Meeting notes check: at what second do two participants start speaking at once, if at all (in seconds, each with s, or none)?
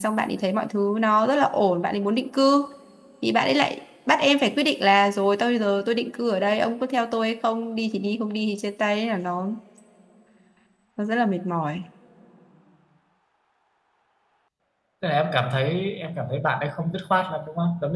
none